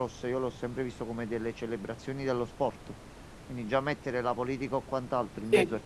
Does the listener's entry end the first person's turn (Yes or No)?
No